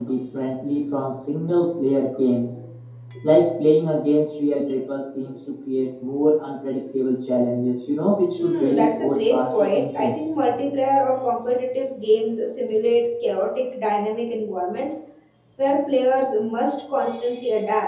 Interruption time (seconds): 8.4 s

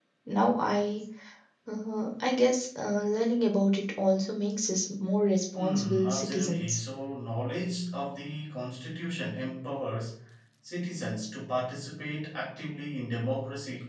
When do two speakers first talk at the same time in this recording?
5.5 s

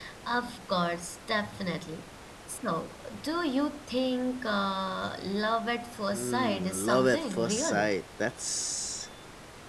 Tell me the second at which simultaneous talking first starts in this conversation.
6.1 s

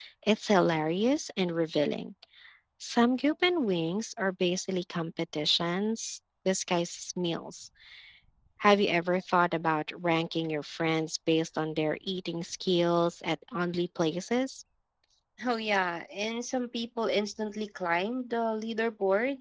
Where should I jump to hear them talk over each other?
none

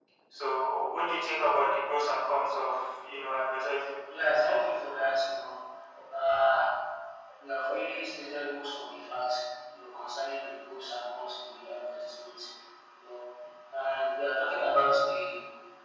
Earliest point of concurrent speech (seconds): none

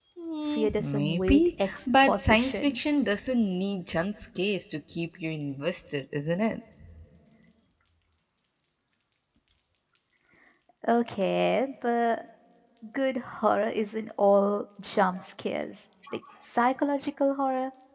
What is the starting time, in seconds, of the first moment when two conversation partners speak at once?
0.5 s

